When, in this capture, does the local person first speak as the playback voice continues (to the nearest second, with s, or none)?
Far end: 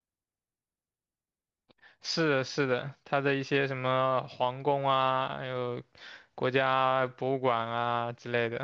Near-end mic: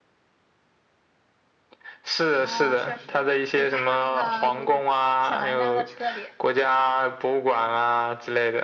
2 s